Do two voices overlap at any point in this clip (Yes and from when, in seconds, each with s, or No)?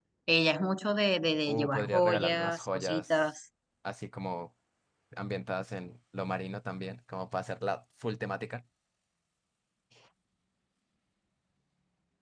Yes, from 1.5 s